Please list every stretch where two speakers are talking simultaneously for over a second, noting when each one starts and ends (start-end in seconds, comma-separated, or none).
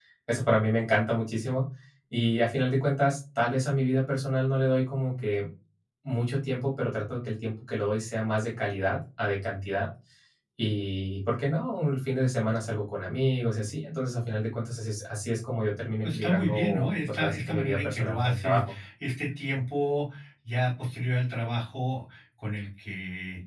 16.0-18.8